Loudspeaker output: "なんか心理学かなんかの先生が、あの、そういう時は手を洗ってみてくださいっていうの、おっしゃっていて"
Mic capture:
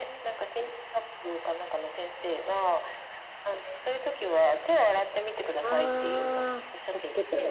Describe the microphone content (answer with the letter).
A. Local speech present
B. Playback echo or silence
A